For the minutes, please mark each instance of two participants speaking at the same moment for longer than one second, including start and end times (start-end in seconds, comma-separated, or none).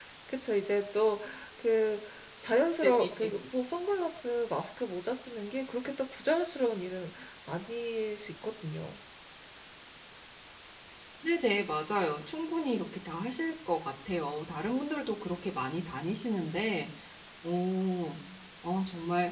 none